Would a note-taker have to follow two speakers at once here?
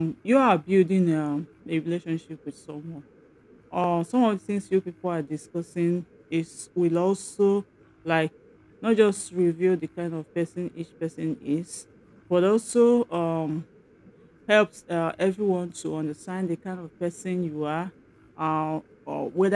No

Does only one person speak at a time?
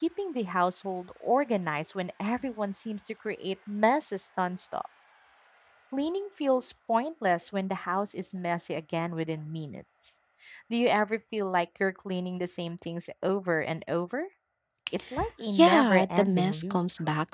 No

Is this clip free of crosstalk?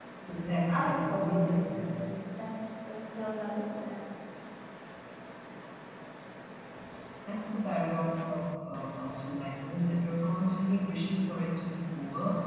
No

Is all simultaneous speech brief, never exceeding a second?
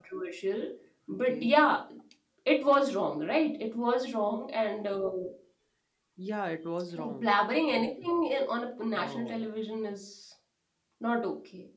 Yes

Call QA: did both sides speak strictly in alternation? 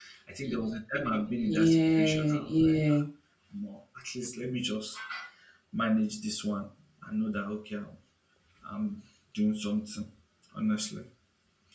No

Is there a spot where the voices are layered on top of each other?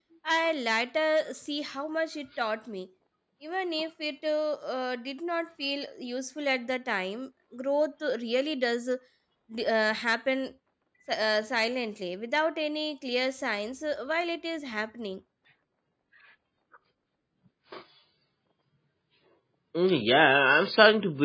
No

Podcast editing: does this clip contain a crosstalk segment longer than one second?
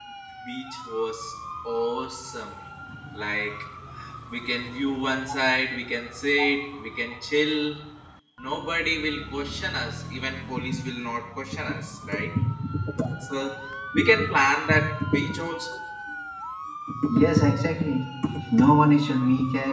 No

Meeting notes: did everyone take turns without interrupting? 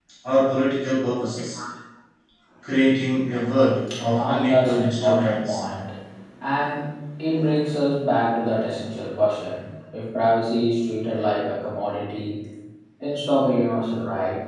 No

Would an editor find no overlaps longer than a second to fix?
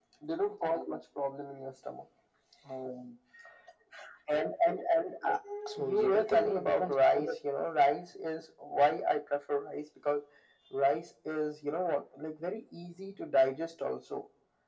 No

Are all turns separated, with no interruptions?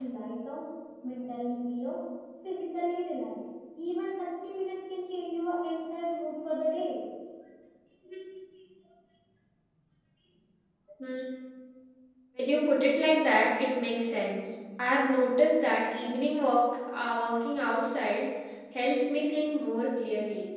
Yes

